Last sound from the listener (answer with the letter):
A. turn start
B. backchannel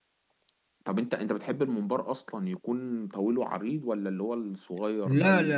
A